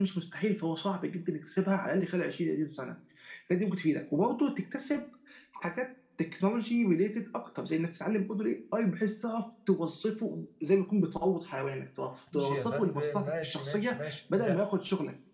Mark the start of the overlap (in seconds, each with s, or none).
12.3 s